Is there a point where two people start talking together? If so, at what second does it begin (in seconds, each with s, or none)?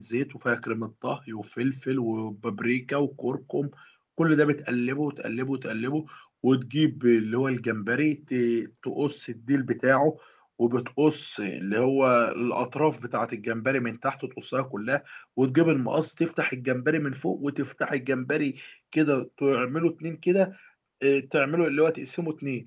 none